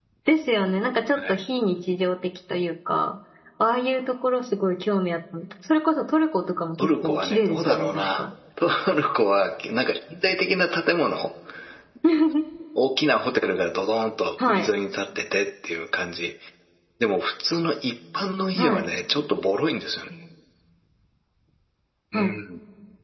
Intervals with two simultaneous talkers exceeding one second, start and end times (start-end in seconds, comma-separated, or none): 6.8-8.2